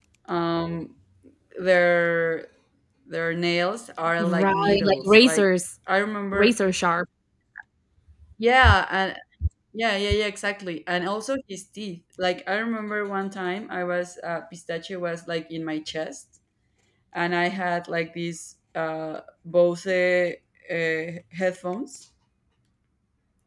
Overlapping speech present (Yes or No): Yes